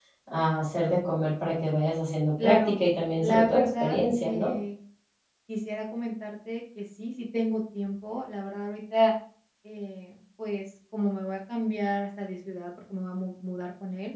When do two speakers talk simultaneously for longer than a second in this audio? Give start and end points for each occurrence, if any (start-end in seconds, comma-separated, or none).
3.2-4.5